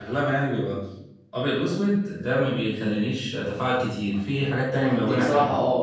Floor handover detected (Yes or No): Yes